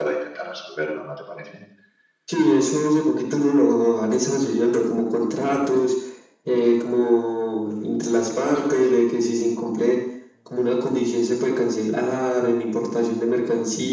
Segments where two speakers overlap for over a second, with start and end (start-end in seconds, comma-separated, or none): none